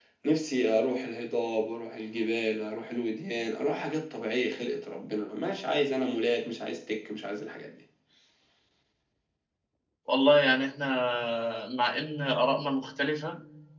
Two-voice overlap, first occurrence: none

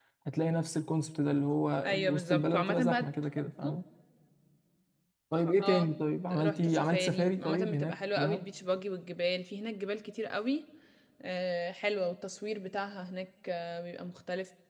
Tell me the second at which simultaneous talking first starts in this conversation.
1.9 s

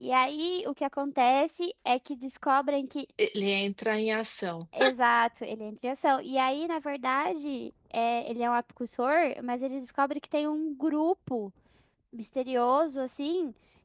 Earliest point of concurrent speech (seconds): none

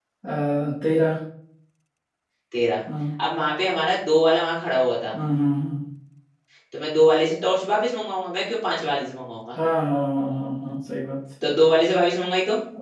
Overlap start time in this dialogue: none

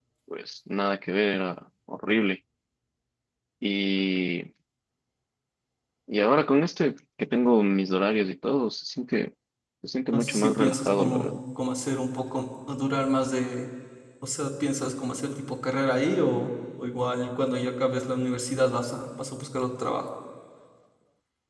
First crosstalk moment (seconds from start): 10.1 s

